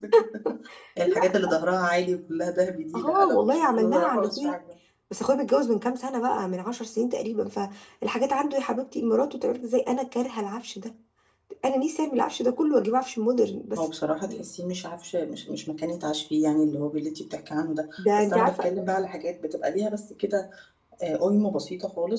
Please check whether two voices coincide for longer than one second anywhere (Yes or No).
Yes